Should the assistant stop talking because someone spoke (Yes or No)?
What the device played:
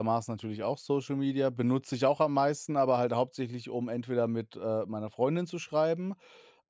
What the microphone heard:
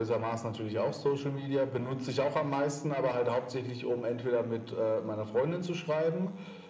No